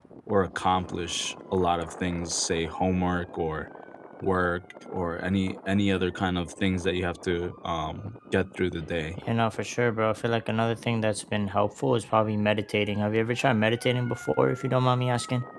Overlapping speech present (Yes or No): No